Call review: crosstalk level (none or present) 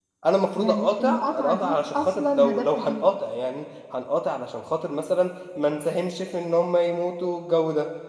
present